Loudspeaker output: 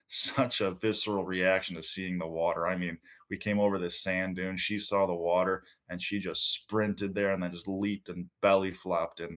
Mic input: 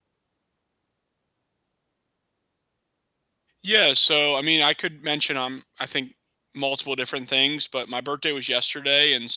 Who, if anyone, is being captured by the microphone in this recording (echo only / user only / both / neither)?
user only